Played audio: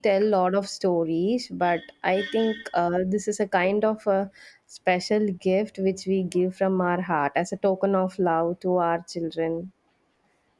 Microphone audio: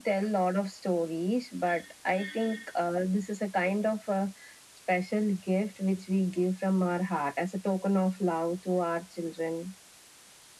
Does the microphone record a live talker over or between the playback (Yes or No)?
No